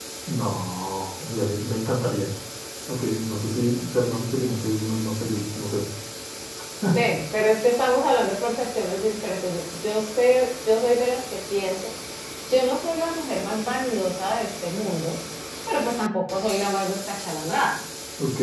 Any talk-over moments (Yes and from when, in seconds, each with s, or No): No